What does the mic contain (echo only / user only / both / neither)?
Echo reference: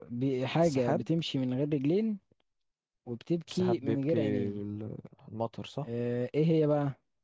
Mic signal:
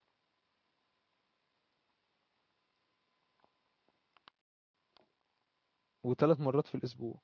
user only